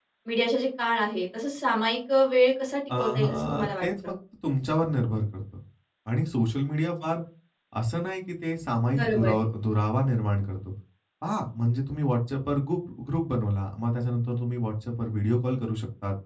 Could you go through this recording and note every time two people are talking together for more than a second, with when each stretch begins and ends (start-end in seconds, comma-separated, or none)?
2.9-4.1